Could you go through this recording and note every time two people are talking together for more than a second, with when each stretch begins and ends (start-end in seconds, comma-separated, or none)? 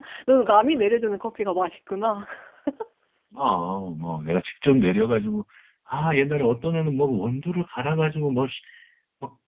none